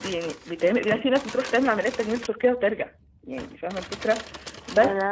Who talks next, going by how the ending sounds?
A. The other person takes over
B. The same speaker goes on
B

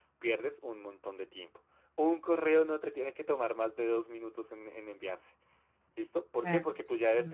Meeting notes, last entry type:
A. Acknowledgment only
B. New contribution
A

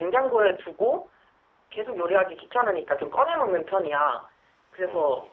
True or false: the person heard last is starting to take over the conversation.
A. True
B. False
B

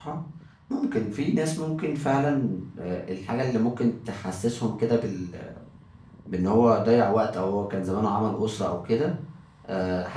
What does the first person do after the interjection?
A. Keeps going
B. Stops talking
A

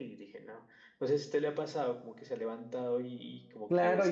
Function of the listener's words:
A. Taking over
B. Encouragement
A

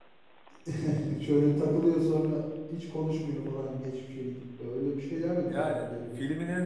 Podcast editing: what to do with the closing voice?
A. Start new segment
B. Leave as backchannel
A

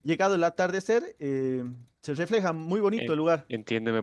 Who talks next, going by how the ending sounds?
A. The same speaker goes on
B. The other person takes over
B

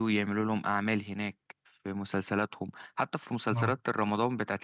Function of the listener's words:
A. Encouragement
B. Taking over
A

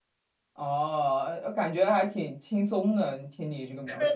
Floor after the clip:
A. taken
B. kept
A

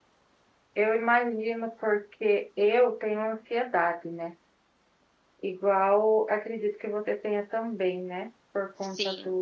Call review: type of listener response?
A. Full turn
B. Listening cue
B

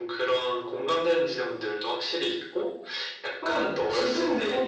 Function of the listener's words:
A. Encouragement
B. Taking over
B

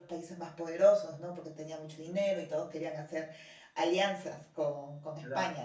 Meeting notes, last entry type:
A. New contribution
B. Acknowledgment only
A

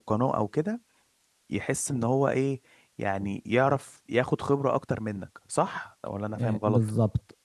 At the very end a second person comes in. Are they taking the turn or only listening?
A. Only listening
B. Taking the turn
B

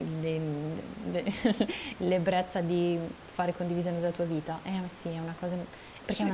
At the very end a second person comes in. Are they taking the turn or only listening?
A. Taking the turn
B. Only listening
A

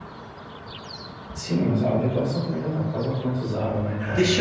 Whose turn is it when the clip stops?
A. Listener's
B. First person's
A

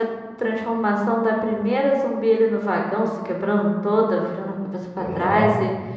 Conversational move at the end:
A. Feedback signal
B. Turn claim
B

